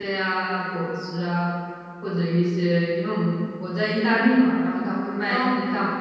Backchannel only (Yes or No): Yes